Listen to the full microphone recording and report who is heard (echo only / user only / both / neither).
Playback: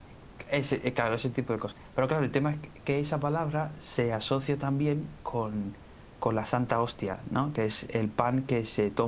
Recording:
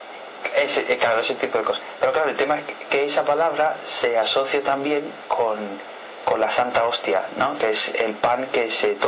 echo only